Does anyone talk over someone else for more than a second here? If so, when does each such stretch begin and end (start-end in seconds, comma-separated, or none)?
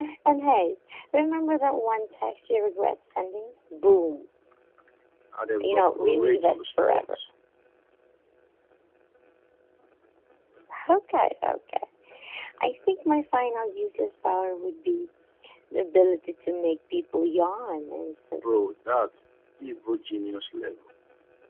5.6-7.2